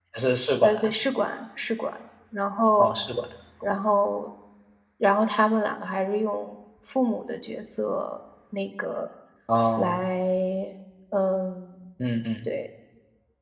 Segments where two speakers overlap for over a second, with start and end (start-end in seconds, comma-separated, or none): none